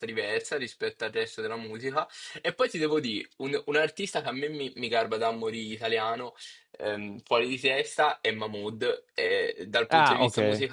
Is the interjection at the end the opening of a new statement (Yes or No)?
No